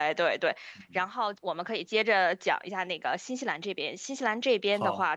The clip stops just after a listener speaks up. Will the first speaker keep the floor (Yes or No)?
Yes